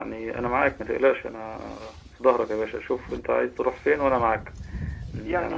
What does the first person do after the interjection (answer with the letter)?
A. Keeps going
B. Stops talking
A